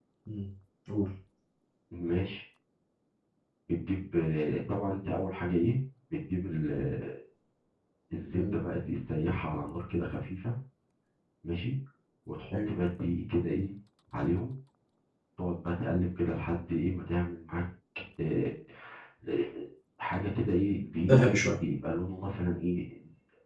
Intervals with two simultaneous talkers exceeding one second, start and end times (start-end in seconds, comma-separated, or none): none